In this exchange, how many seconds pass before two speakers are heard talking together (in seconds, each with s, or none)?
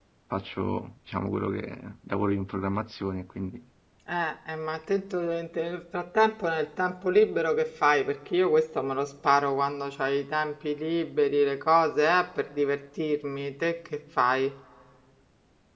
none